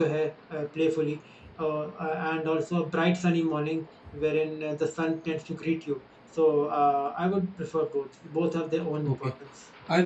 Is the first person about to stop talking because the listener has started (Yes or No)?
Yes